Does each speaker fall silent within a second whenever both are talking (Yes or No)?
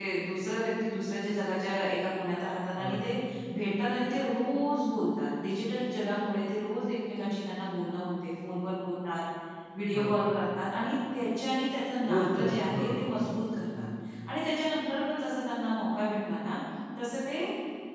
No